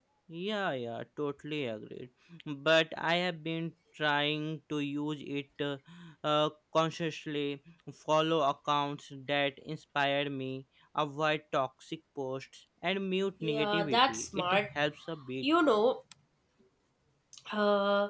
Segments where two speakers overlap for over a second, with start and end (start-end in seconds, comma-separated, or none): 13.4-14.6